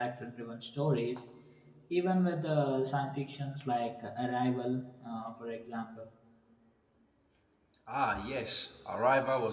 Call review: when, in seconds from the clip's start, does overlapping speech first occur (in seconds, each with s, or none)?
none